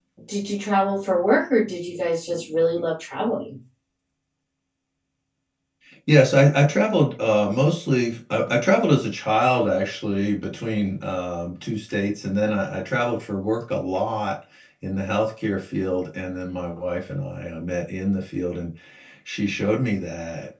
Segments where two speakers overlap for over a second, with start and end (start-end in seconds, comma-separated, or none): none